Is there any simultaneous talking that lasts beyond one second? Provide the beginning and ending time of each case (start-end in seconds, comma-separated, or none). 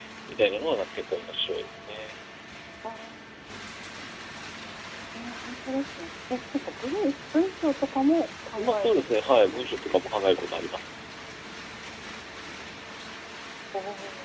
8.6-9.9